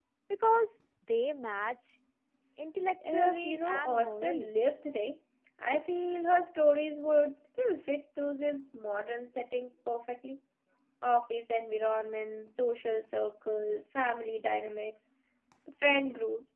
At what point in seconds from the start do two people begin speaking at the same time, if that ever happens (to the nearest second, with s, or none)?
3 s